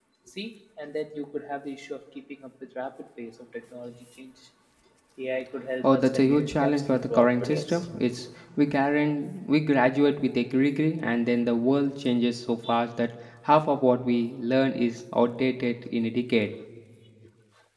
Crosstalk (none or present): present